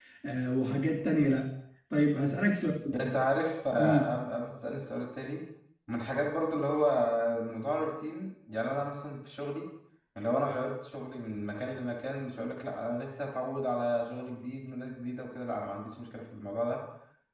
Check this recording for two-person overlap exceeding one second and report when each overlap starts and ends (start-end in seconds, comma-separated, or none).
none